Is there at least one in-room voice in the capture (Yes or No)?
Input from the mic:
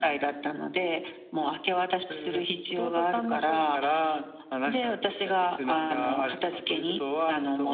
No